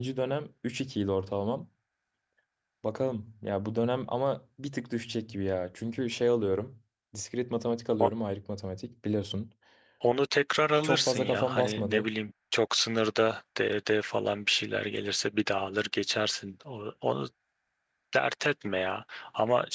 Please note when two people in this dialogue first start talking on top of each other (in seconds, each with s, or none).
10.8 s